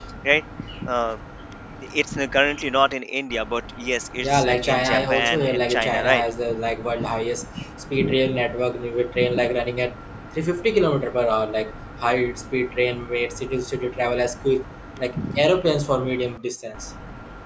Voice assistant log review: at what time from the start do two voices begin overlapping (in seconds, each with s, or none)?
4.2 s